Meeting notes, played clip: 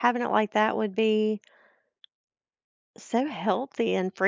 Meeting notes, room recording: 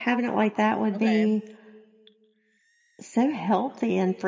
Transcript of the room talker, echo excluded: Okay.

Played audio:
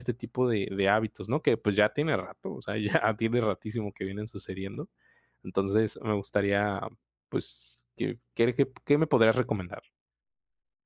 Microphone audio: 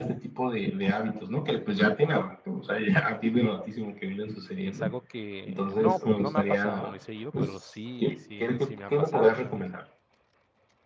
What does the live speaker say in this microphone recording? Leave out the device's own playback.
es algo que no no me ha pasado muy seguido, pero sí sí sí me ha pasado, ¿sabes?,

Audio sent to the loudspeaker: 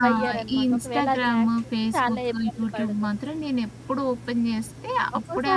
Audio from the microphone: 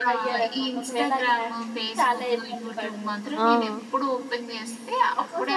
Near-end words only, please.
ఆ!

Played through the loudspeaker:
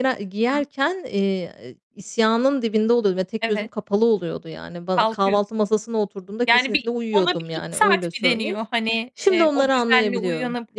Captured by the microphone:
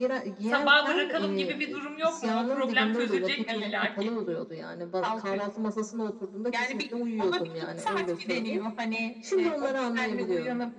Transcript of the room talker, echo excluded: sabahı bırakalım gibi bir durum yok mu? O problem çözülecek mi illaki?

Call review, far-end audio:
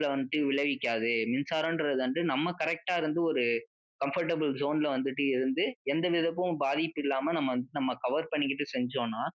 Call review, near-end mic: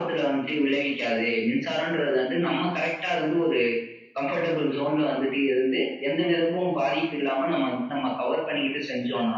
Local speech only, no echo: none

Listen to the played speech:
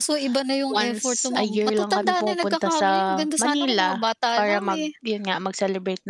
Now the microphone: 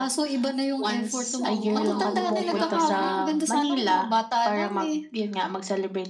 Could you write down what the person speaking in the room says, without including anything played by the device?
oo, naoobliga ka na,

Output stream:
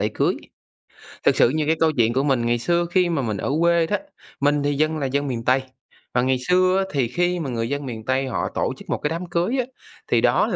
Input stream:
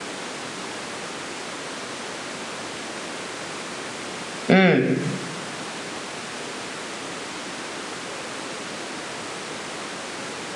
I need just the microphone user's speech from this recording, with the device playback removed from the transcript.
Ừm.

